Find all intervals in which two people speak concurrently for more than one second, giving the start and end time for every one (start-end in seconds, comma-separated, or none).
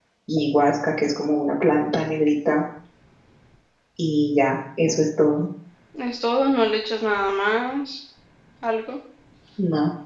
none